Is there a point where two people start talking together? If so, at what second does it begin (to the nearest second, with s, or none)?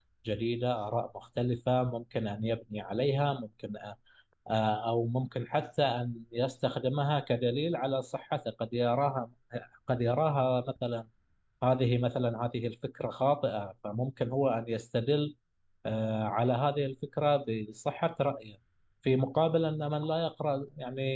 none